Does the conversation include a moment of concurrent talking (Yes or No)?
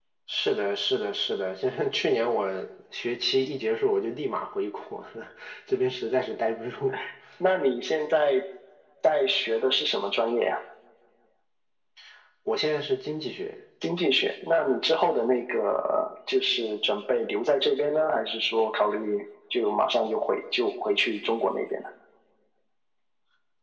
No